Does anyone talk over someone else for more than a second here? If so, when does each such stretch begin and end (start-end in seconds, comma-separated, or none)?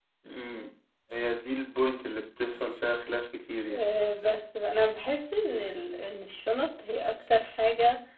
none